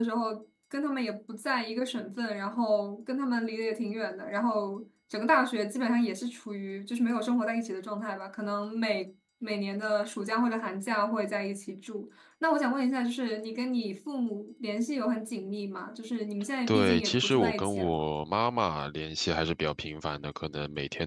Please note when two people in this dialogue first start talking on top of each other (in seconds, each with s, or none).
16.7 s